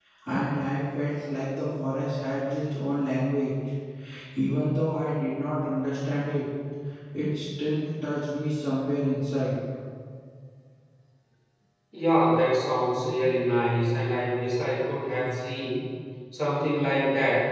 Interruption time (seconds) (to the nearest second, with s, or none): none